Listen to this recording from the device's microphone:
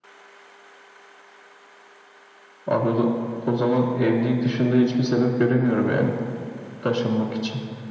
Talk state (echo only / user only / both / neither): echo only